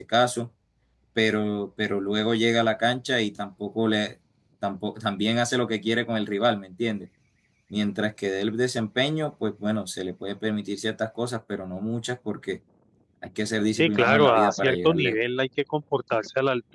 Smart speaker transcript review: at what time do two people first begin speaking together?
13.8 s

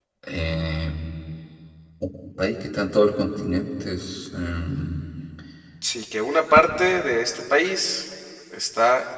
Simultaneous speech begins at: none

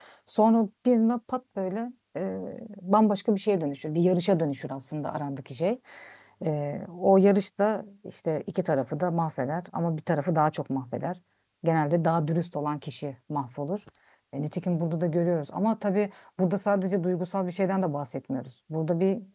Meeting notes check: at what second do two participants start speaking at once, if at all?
none

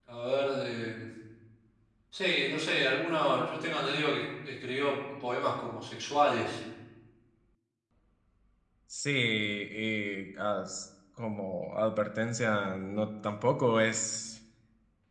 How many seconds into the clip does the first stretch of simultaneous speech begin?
none

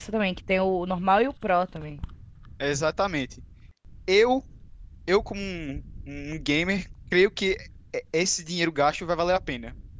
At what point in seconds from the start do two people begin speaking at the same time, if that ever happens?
none

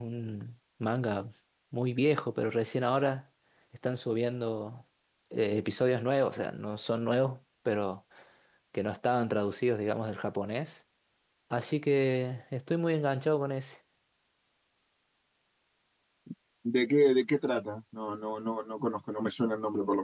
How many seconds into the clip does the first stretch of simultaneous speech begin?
none

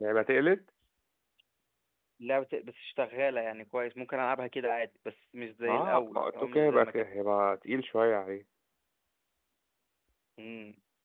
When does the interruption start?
5.7 s

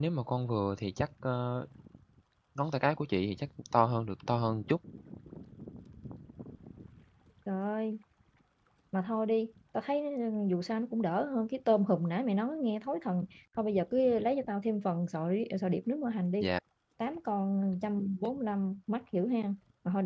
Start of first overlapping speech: none

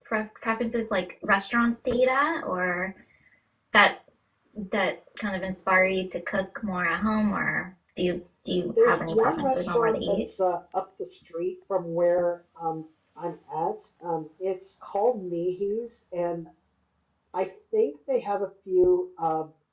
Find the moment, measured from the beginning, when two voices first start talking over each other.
8.8 s

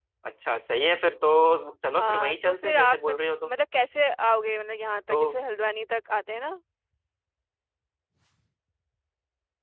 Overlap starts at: 2.0 s

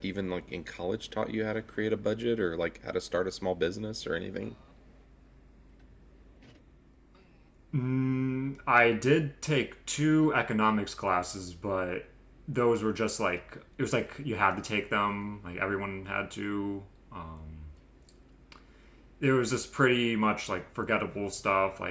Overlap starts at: none

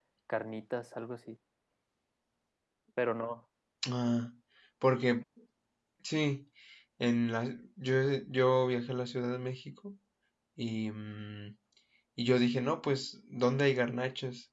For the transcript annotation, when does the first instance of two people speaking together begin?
none

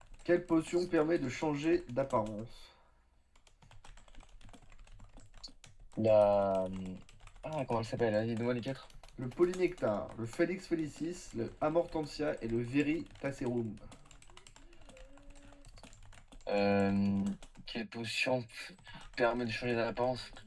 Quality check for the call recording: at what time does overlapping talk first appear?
none

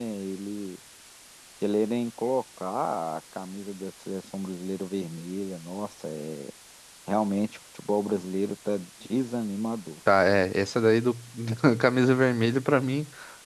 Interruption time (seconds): none

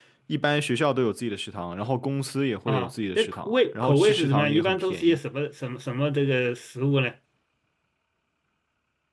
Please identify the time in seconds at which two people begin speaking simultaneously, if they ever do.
2.7 s

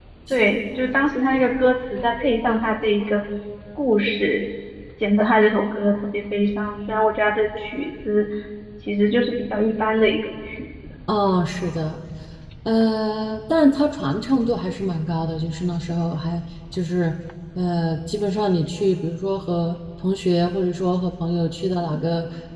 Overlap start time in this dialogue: none

